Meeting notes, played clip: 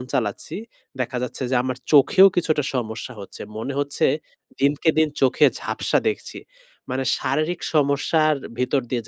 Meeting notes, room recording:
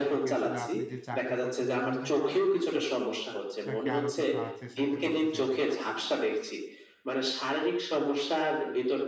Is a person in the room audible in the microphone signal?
Yes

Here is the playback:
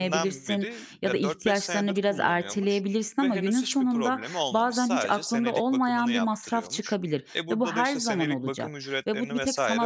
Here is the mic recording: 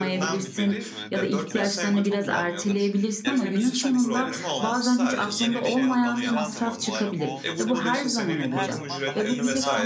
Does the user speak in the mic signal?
Yes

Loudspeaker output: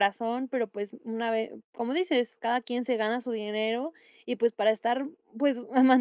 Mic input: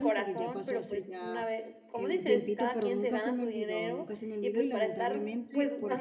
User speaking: Yes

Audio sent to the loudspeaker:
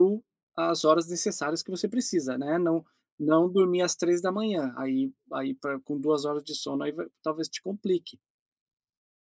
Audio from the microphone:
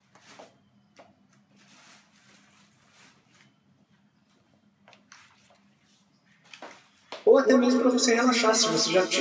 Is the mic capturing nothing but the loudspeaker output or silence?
No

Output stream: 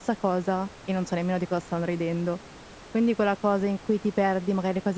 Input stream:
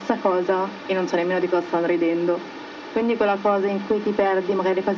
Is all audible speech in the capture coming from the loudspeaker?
Yes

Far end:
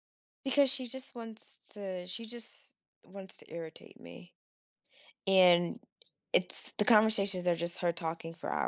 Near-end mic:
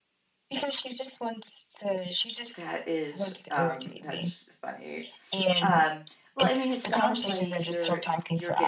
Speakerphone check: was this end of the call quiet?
No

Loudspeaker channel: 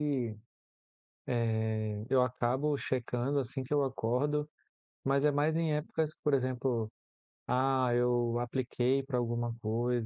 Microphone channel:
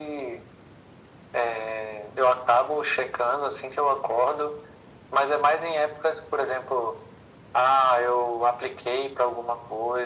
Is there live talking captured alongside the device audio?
No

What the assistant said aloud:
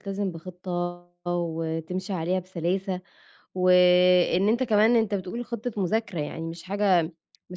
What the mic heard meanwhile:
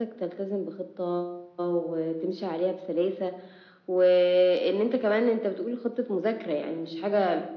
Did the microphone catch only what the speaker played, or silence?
Yes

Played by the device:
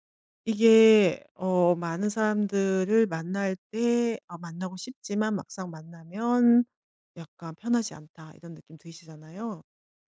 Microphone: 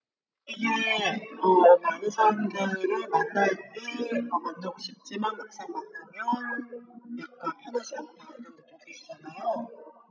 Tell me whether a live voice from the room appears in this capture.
No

